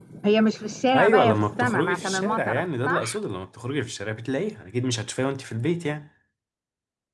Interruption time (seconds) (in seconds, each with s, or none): 0.9 s